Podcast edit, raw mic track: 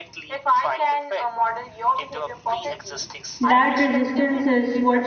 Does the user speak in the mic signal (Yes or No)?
Yes